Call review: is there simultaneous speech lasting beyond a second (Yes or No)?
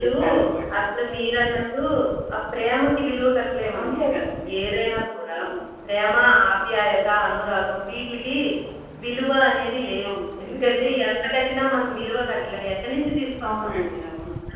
No